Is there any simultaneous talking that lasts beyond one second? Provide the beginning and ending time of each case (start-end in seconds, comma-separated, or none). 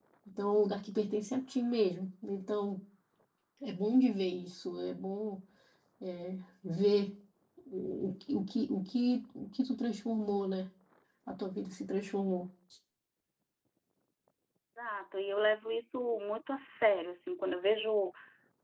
none